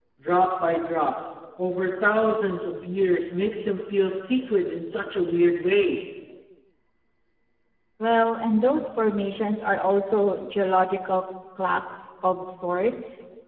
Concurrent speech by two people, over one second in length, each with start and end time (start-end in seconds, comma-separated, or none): none